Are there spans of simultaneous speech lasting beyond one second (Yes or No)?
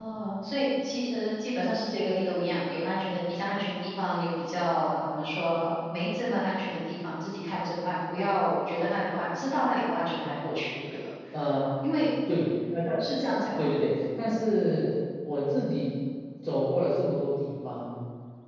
No